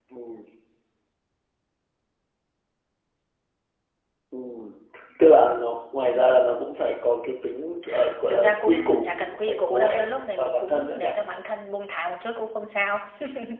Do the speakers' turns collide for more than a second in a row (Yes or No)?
Yes